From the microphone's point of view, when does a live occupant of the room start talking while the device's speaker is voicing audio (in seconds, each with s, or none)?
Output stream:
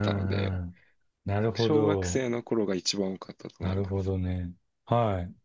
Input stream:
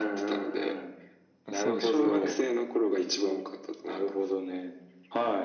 1.4 s